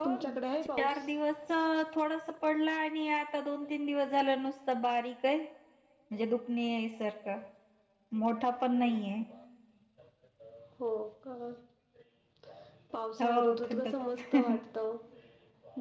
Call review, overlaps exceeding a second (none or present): present